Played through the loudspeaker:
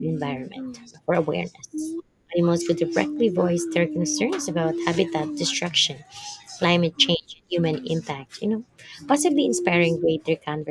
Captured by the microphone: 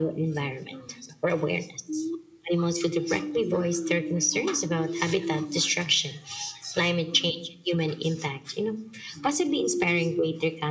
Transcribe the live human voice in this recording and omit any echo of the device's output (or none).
none